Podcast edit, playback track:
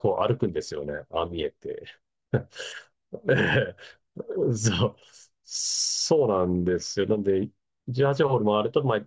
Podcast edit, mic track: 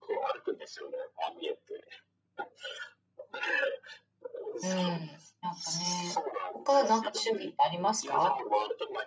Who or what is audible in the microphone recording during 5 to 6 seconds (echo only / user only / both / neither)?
both